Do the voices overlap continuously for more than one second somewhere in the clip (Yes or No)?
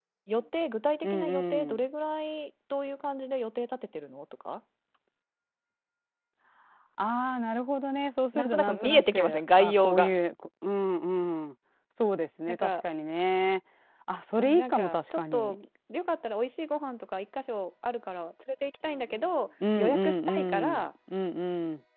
Yes